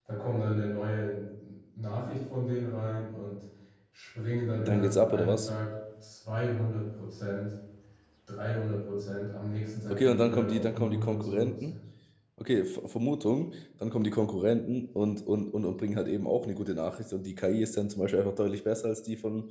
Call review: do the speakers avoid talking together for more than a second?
No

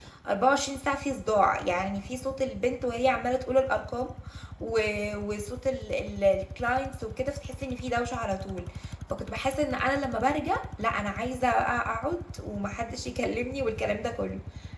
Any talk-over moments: No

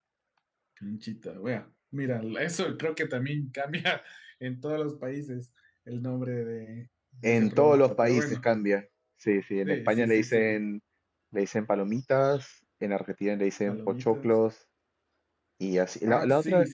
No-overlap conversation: No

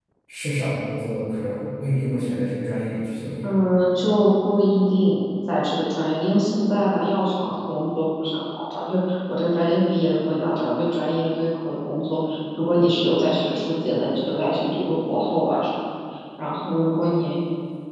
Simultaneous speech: No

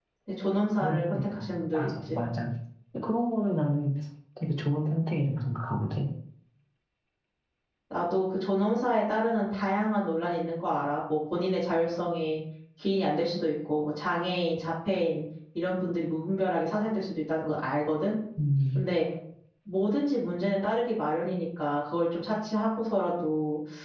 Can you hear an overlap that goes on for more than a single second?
Yes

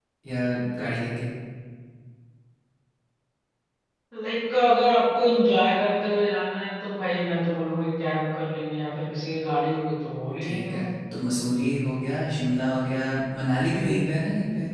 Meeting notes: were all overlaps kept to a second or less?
Yes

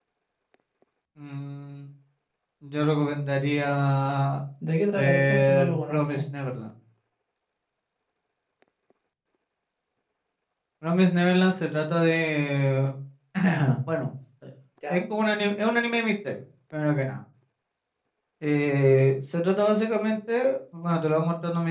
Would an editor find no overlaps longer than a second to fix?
No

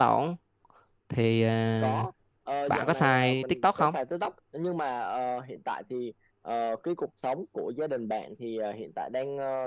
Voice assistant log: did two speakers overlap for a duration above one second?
Yes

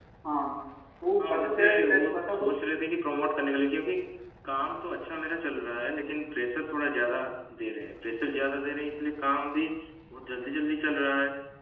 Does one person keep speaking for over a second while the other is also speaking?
Yes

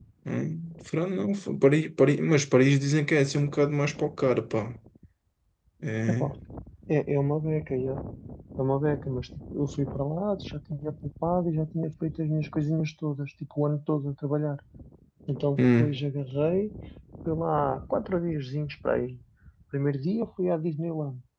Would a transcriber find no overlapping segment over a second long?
Yes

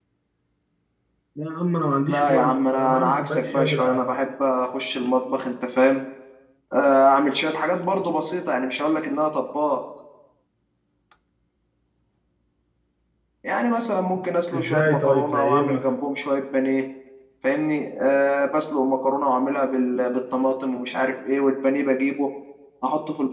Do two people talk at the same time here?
Yes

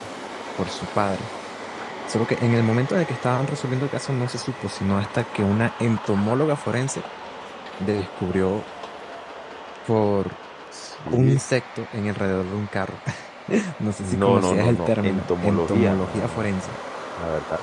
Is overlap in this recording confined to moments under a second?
No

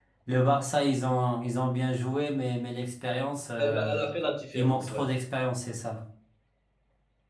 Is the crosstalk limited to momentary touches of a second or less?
Yes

